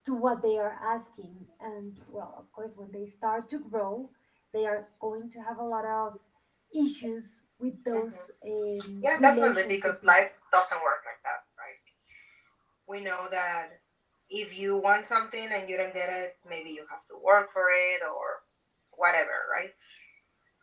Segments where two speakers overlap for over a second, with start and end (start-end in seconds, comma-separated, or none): 9.0-10.3